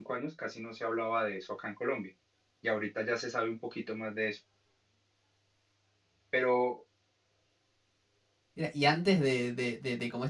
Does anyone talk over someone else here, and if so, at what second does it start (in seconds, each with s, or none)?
none